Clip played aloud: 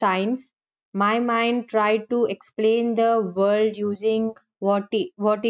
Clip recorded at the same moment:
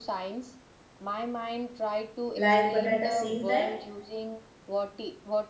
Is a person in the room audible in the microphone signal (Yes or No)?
Yes